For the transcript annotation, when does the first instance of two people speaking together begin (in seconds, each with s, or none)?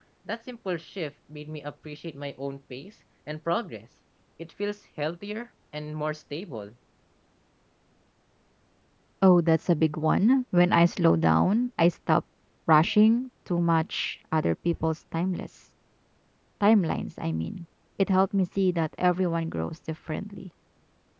none